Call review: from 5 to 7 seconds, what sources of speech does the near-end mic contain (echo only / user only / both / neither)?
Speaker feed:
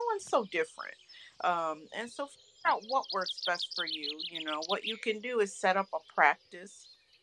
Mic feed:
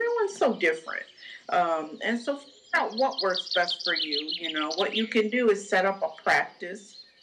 echo only